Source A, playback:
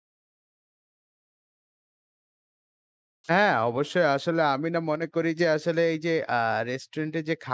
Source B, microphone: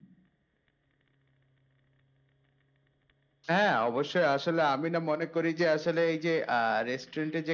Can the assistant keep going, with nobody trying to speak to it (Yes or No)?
Yes